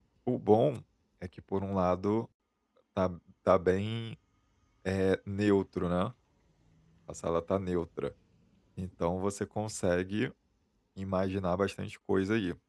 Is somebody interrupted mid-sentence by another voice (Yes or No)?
No